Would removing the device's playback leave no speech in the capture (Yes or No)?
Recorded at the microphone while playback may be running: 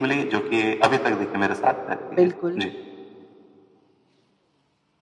No